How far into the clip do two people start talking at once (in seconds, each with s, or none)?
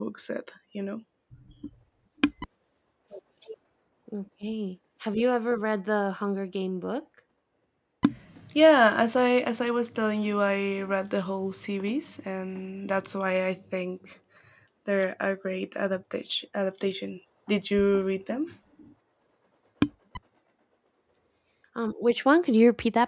none